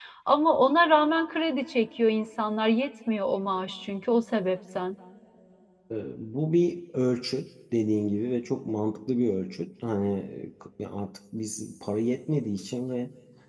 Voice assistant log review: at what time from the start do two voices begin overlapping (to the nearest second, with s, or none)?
none